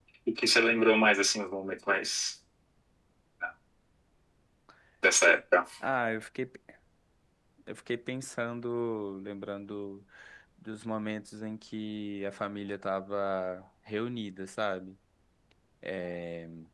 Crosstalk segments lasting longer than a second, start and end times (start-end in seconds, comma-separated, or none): none